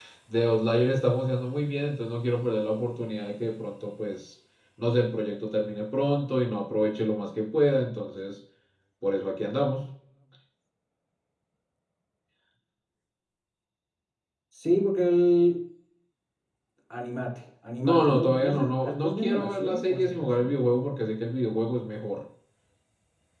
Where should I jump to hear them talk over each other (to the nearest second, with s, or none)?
18 s